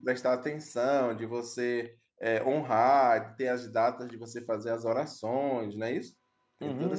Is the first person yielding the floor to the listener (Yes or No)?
Yes